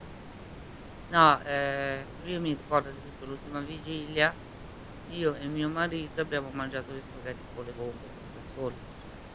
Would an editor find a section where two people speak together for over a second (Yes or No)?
No